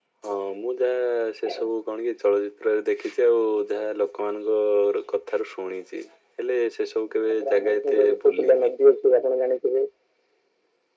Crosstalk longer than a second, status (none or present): present